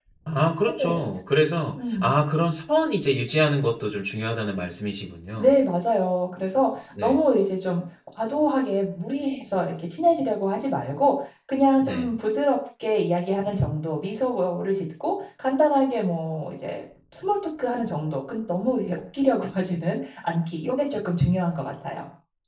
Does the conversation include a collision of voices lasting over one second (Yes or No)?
No